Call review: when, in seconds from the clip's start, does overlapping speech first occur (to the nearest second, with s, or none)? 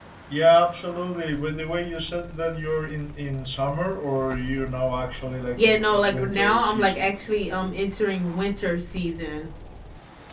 6 s